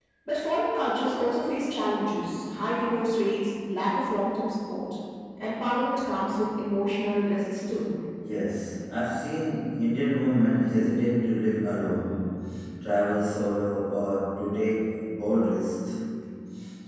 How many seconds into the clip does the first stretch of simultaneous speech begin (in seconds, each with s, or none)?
none